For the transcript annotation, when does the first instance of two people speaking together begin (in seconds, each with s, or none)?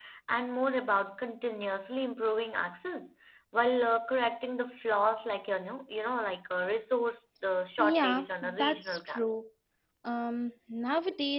7.8 s